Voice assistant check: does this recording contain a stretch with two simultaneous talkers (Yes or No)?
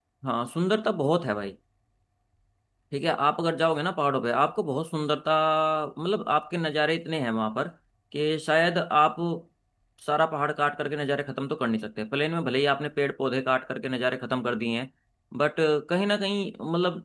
No